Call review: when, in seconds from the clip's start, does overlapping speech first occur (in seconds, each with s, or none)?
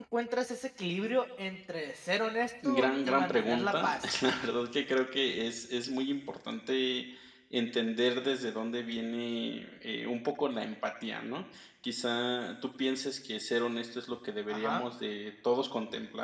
2.6 s